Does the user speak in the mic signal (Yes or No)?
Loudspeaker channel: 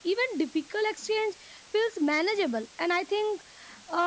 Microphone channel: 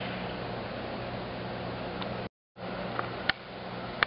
No